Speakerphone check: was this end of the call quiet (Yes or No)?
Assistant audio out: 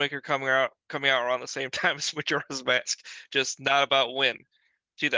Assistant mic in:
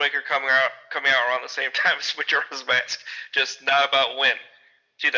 Yes